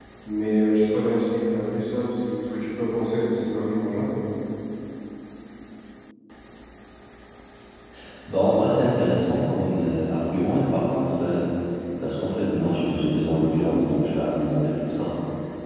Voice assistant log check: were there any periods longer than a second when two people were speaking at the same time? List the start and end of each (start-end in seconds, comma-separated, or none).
none